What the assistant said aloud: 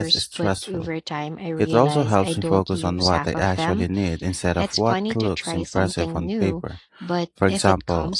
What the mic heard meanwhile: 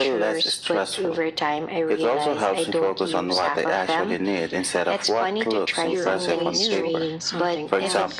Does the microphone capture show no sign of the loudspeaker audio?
No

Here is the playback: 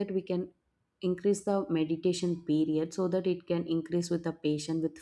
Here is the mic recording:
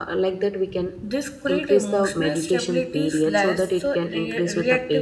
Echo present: Yes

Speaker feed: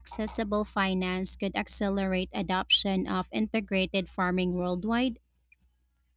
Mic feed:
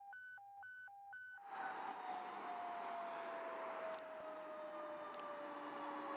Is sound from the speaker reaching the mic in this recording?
No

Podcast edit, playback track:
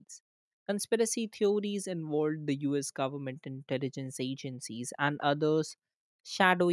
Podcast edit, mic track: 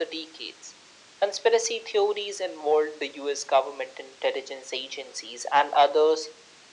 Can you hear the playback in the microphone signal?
Yes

